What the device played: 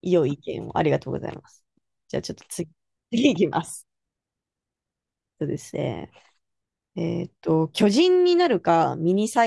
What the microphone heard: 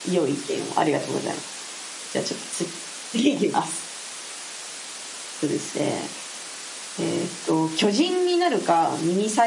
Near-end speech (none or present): none